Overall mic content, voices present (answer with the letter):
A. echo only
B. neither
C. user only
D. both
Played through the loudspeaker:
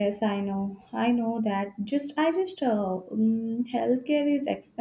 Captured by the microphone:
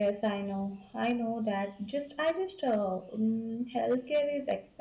A